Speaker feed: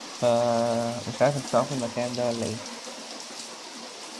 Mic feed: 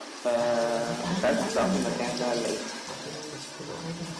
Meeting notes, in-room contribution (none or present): present